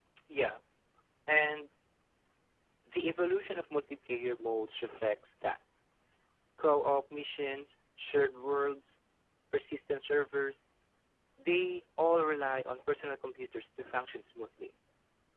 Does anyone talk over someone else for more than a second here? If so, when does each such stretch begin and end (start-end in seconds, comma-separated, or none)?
none